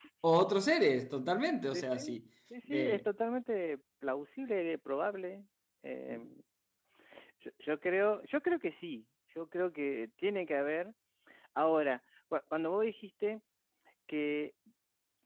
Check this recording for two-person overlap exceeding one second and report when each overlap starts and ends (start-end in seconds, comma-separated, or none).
none